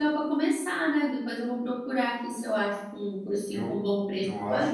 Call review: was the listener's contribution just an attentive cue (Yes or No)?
No